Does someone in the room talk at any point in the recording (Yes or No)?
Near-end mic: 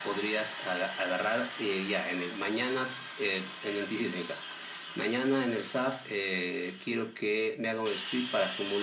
No